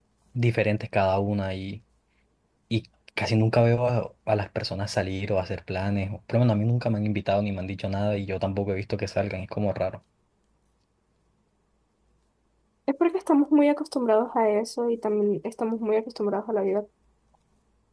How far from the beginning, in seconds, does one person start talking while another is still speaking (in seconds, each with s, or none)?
none